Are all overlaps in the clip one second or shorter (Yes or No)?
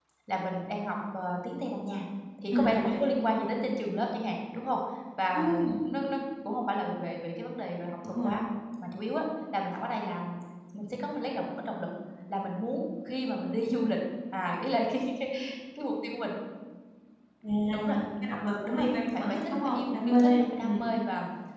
No